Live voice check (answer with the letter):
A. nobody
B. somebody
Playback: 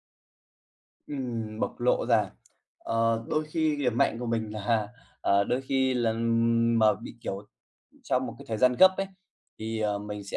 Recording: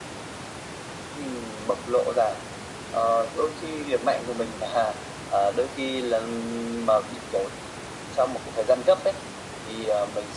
A